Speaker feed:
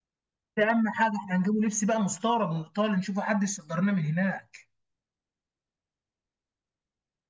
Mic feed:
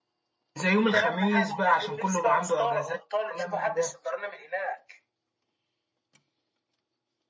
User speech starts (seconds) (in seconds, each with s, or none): 0.6 s